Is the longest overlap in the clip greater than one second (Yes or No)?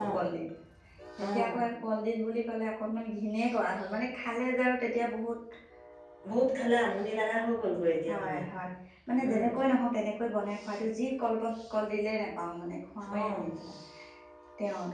No